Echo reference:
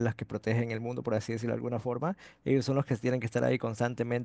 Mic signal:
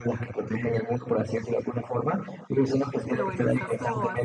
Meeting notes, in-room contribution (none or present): present